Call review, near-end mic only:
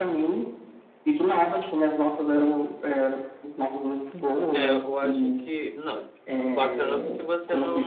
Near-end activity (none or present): present